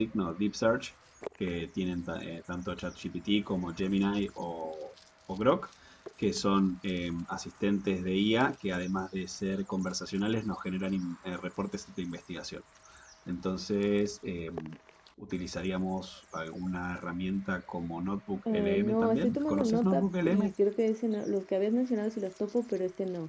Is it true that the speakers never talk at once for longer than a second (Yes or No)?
No